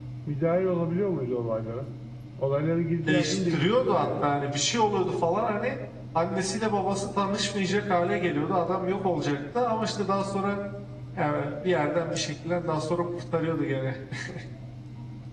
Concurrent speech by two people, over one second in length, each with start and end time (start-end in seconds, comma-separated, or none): 3.1-4.5